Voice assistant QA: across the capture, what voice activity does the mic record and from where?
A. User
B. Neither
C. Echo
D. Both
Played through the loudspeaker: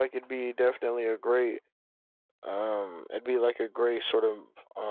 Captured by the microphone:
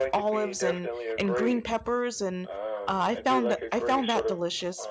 D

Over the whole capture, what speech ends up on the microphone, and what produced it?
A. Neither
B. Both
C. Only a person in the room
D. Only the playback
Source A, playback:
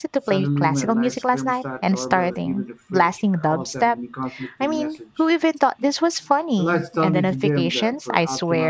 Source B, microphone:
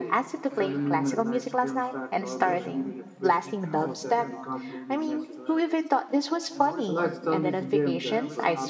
B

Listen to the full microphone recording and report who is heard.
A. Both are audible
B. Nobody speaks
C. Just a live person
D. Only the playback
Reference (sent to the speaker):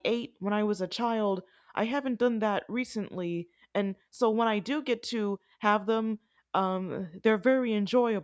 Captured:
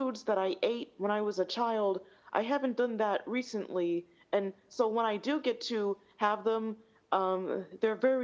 D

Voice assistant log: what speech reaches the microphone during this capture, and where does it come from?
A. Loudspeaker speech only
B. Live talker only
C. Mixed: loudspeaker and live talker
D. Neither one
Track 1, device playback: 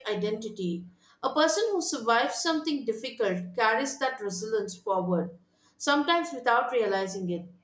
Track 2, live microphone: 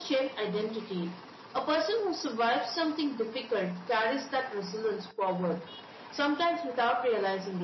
A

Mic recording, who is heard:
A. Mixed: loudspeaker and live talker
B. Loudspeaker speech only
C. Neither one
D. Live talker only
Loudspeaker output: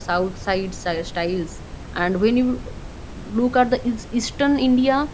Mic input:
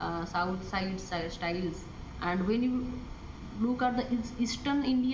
B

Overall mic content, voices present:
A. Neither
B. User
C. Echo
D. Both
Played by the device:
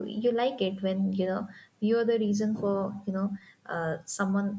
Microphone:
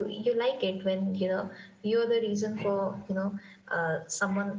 C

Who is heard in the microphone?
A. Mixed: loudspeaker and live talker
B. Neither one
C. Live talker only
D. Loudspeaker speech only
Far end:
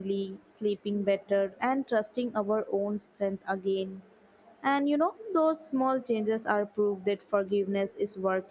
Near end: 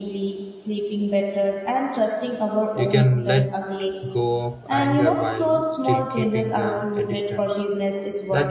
A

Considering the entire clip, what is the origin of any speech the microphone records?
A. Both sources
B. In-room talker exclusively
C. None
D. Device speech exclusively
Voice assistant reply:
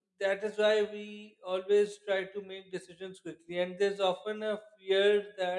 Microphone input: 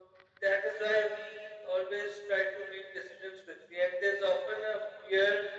D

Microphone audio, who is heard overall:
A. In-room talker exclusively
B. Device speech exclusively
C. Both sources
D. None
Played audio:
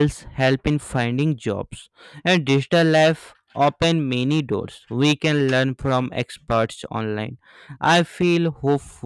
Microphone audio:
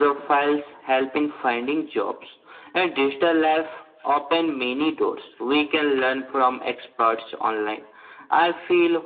B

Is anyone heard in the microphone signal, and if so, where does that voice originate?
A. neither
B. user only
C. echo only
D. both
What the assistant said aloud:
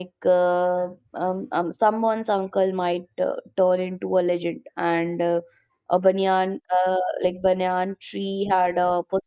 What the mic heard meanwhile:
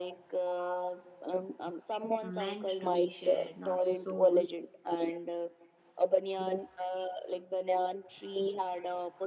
D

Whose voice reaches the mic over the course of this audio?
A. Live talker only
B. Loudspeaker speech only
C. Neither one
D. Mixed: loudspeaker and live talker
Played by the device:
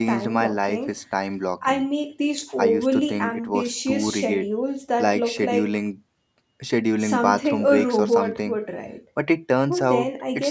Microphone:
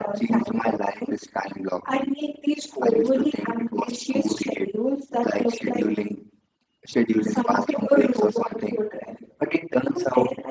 B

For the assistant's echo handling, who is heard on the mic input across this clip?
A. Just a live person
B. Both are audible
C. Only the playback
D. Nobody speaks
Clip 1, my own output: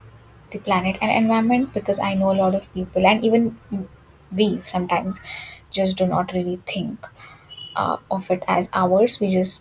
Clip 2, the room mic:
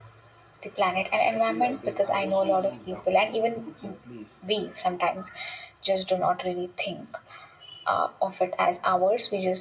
B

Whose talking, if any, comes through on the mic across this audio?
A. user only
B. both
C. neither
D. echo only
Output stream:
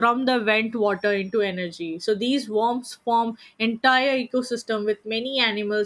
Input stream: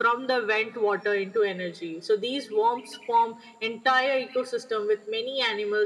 D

